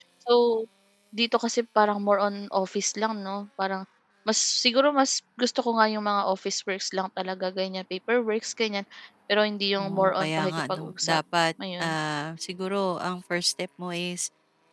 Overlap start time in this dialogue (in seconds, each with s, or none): 9.8 s